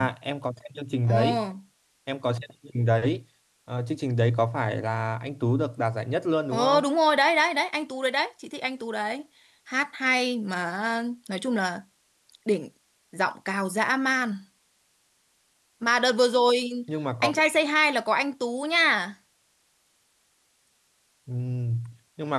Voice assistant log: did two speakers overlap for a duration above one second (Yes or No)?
No